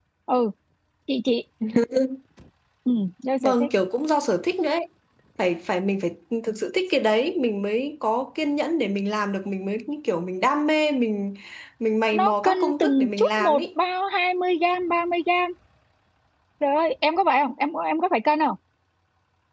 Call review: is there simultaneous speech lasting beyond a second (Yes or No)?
Yes